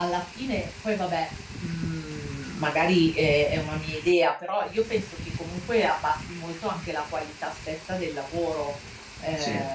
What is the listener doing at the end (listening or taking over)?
taking over